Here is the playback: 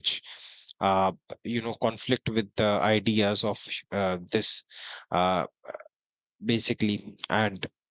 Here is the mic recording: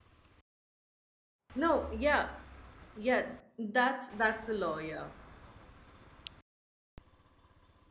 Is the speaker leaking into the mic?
No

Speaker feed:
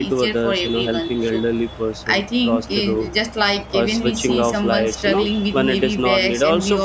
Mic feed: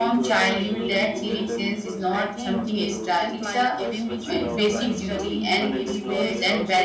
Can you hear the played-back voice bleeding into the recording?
Yes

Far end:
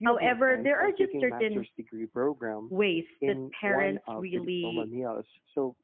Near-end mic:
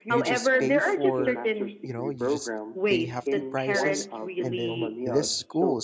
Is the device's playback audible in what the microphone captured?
Yes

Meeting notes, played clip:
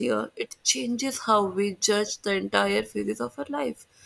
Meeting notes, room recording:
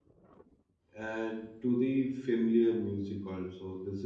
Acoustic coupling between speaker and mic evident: No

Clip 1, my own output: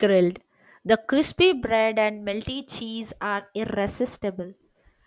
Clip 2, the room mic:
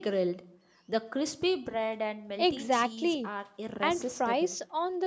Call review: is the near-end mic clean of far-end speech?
No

